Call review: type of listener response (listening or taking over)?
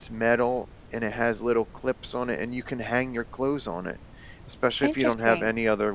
listening